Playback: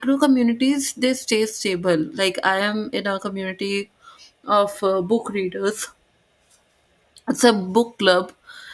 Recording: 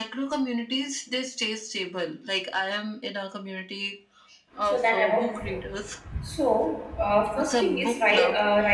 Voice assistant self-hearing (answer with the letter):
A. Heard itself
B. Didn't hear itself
A